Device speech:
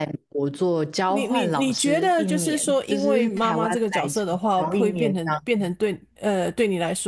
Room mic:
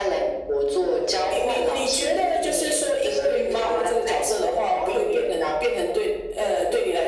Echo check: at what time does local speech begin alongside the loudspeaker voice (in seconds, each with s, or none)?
none